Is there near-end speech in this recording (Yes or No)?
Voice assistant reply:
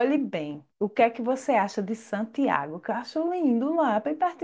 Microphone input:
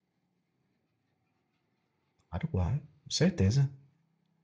Yes